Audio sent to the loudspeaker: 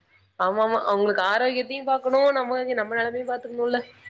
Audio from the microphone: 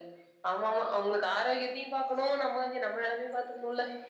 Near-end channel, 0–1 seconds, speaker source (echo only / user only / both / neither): echo only